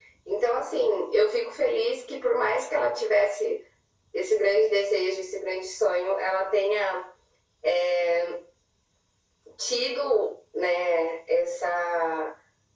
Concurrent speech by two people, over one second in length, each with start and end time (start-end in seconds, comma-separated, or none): none